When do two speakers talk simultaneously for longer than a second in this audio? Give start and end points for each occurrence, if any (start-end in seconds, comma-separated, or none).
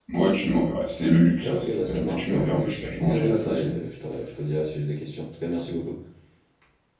1.4-3.8